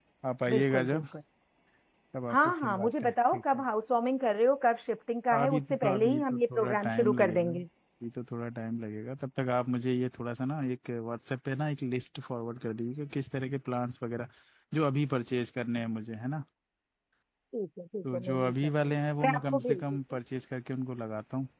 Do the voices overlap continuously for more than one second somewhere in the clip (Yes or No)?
Yes